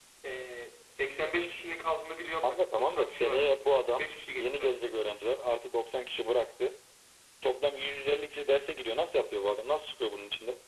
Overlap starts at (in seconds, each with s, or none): 2.4 s